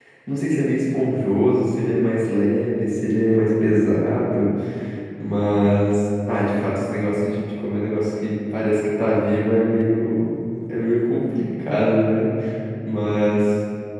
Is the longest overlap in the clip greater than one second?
No

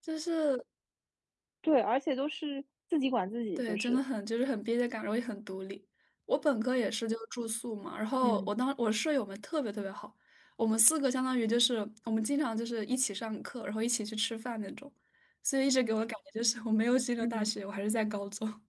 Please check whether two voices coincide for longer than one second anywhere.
No

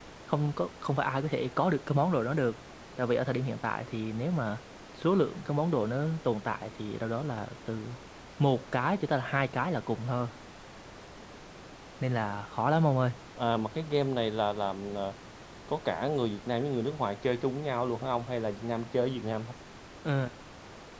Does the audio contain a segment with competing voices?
No

